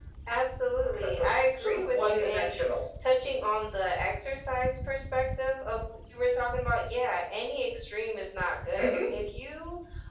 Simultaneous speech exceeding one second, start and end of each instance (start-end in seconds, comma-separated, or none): 0.8-2.6